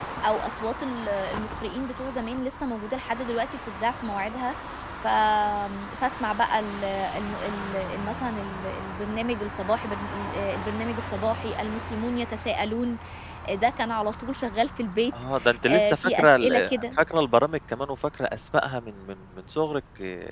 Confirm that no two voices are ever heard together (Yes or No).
No